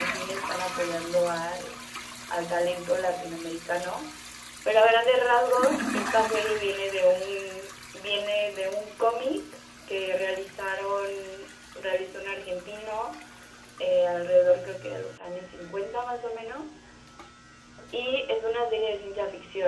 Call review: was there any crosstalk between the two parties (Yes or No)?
No